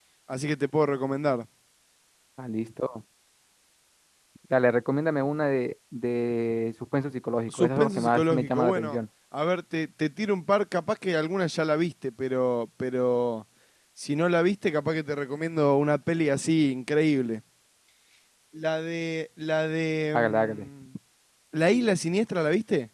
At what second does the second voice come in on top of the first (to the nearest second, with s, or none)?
7 s